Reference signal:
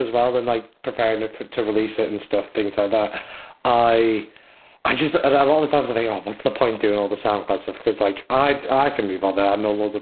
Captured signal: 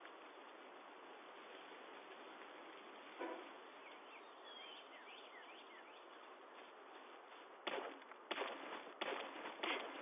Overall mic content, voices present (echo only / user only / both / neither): neither